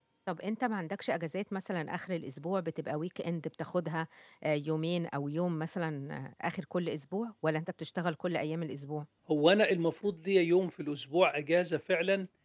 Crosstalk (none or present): none